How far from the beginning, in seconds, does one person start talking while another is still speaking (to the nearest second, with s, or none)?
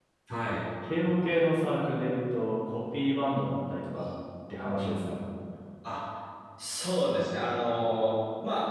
none